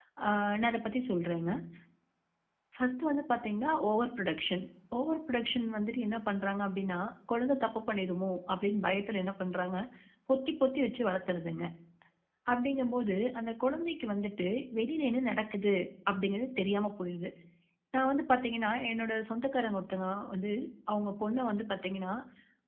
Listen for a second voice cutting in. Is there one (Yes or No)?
No